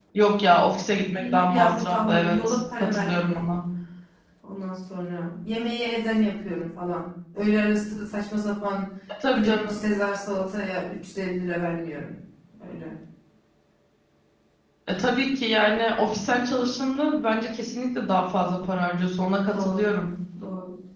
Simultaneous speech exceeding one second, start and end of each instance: 1.2-3.4

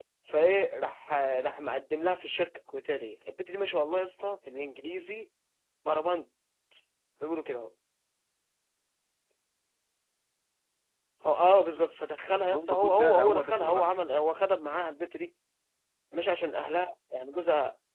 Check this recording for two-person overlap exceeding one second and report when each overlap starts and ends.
12.5-13.9

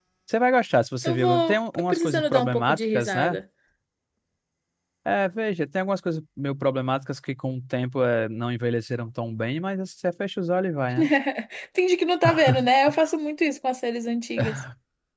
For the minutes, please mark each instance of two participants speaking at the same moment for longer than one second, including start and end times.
1.0-3.4

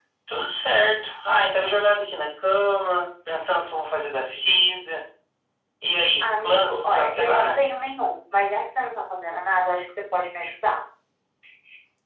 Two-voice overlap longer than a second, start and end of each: 6.2-7.6

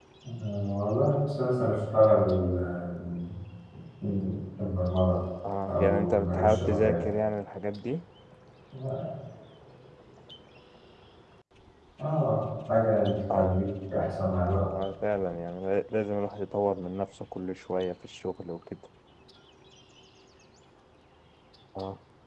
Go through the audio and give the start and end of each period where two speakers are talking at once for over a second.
5.7-7.0

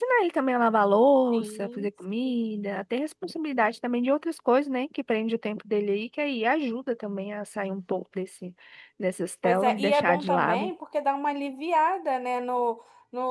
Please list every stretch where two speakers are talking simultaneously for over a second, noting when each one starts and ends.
9.4-10.7

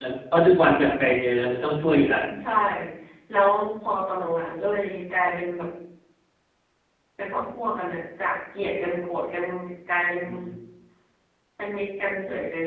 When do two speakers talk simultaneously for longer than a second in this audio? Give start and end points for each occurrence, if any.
none

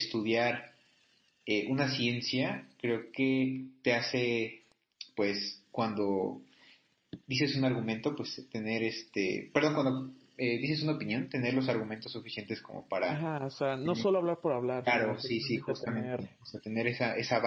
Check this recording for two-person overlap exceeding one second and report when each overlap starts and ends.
14.9-16.3

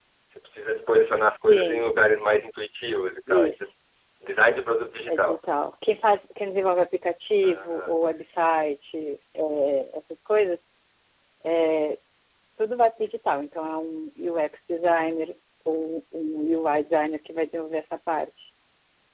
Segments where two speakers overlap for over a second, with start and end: none

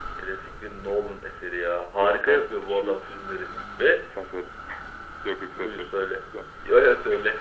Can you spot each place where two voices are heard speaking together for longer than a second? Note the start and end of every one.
2.0-3.5

